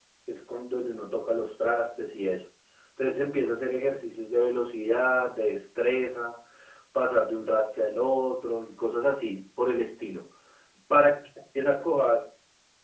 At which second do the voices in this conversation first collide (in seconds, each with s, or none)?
none